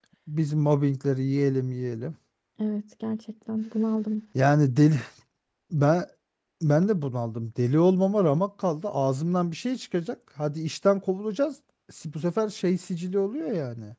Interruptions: none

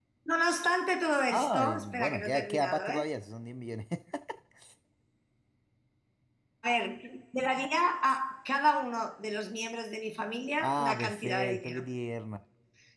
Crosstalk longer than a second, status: present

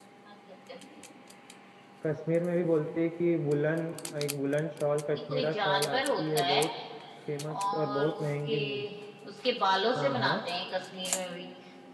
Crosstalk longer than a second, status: present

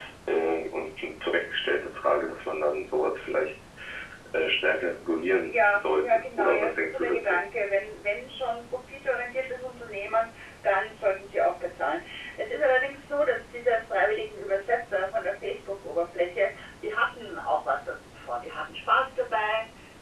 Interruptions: present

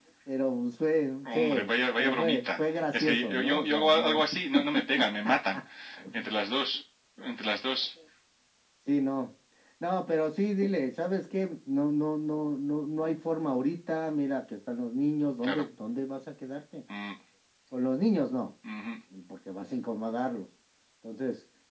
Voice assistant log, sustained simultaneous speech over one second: present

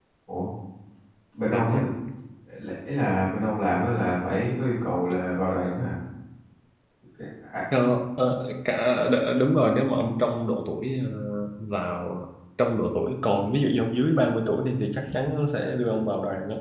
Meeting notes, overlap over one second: none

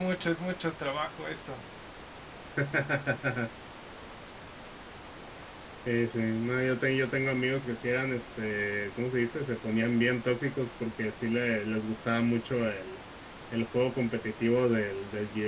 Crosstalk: none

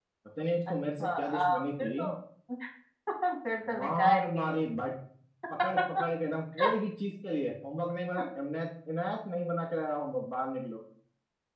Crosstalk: present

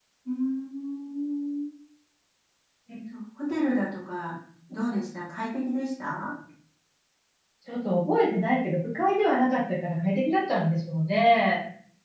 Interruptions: none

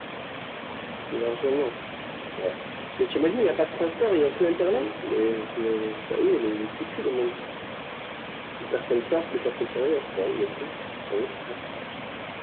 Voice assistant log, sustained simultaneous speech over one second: none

